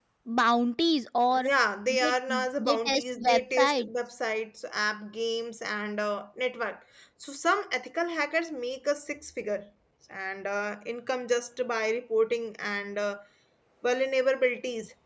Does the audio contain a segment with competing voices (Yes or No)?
Yes